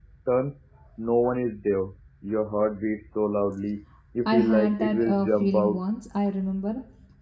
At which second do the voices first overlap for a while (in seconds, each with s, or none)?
4.2 s